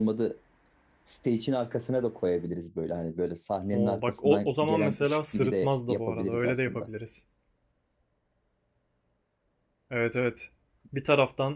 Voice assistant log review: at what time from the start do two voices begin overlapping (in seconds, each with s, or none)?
3.7 s